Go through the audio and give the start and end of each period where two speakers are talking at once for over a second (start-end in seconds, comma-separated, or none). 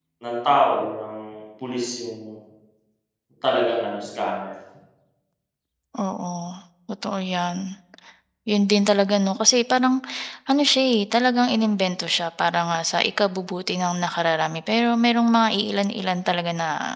none